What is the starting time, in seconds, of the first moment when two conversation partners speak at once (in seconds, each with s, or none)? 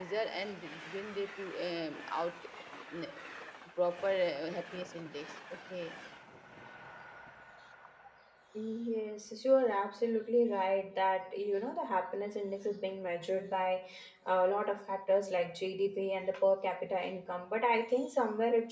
none